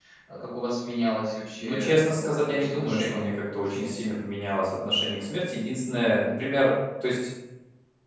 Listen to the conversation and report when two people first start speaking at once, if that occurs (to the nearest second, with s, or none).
2 s